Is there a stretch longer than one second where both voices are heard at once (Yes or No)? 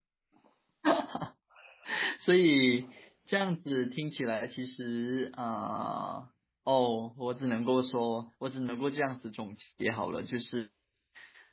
No